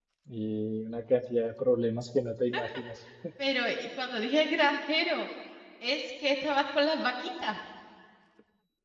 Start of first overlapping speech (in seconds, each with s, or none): none